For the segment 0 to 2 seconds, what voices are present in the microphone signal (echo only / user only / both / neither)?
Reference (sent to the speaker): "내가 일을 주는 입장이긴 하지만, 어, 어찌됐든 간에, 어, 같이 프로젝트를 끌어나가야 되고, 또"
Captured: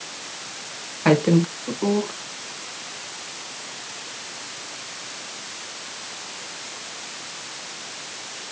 user only